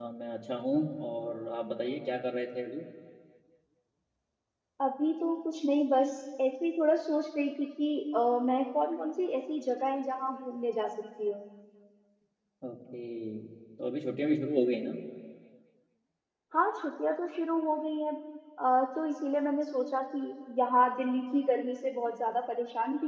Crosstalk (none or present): none